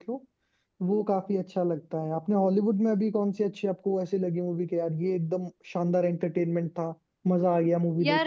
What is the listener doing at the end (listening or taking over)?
taking over